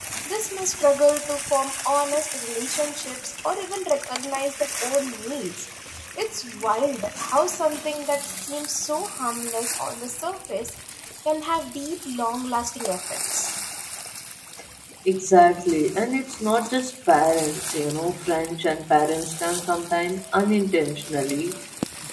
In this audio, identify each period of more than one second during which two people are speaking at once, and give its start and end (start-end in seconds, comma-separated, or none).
none